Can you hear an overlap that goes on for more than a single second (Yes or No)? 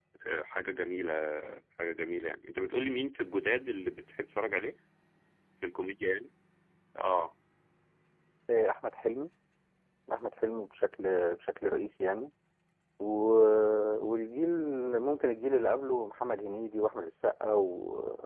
No